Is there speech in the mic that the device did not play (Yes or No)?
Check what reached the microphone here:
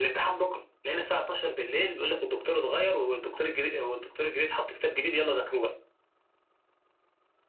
No